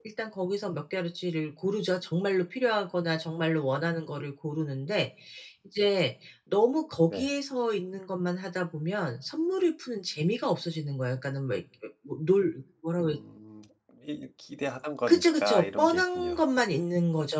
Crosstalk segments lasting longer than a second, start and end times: 15.1-16.4

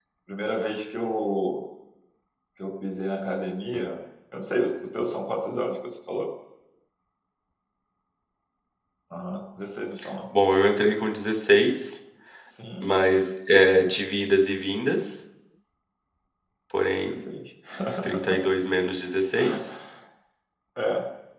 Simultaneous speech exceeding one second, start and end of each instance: none

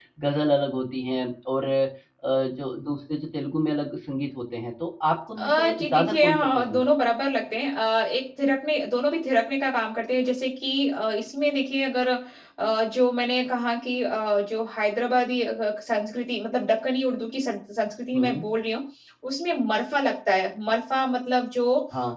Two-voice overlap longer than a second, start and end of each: 5.4-6.8

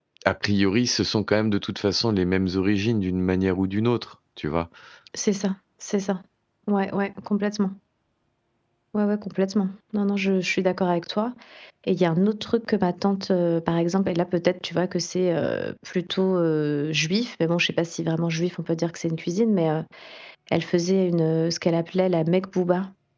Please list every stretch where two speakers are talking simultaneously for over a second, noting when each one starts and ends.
none

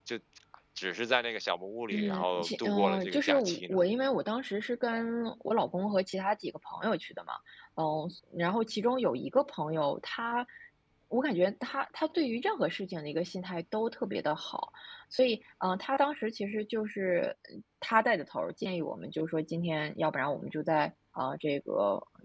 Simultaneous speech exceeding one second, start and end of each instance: 1.9-3.8

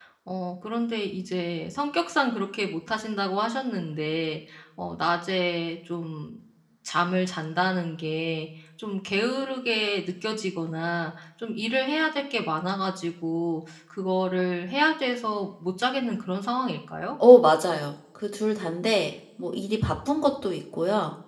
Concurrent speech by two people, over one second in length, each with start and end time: none

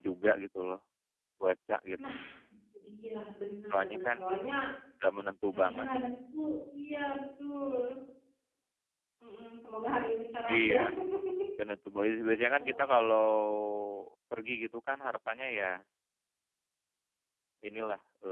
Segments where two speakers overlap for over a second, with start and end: none

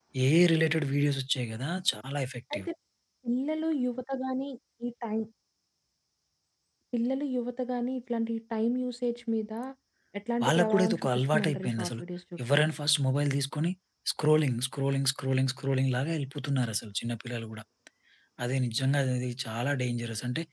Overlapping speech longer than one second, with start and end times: 10.4-12.0

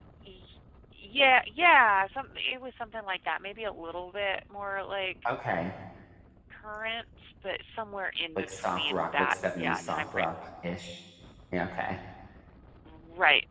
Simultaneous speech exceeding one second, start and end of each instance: 8.4-10.3

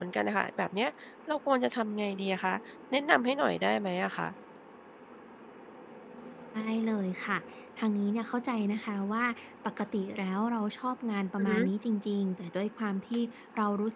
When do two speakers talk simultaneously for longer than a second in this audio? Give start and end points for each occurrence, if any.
none

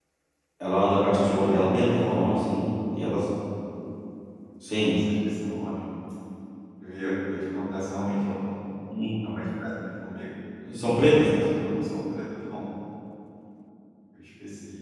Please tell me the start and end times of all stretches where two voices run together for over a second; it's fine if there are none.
1.1-2.3

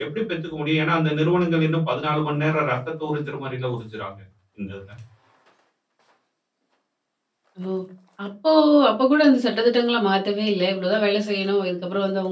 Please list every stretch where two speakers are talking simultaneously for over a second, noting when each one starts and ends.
none

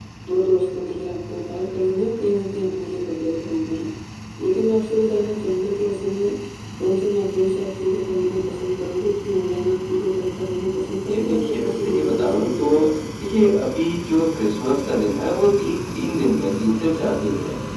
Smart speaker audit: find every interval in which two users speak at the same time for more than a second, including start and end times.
11.1-12.9

